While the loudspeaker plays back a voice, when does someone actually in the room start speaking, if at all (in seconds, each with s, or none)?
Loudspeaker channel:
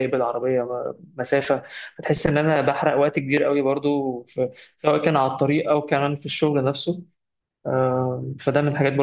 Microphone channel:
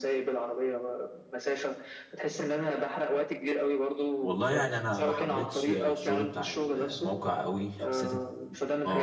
4.2 s